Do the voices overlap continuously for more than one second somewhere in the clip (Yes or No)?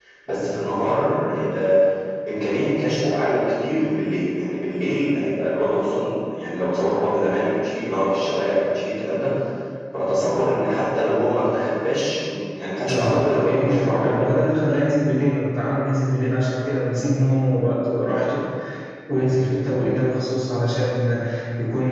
Yes